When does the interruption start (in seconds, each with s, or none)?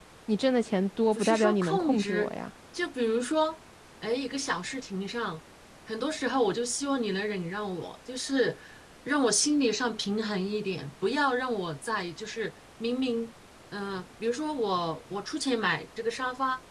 1.1 s